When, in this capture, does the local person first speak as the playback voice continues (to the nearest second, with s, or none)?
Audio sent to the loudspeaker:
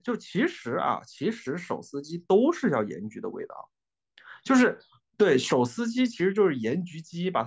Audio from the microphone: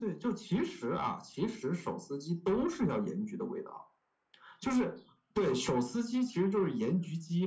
none